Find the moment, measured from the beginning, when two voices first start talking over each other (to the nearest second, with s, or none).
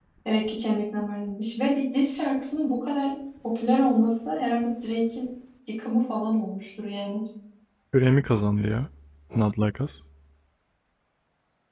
none